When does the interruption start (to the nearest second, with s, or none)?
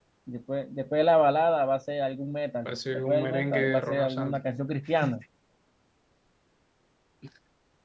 3 s